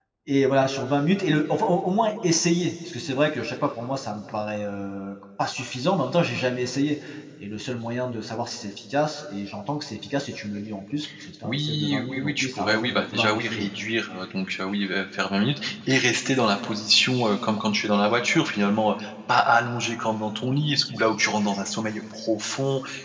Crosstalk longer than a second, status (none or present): present